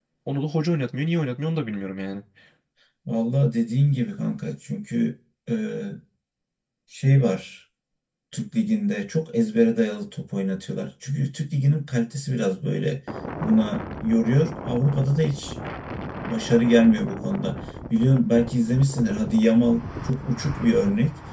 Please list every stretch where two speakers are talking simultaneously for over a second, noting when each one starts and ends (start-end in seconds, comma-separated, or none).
none